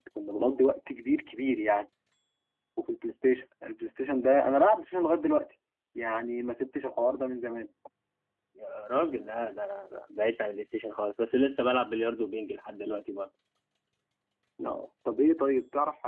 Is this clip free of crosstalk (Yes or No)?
Yes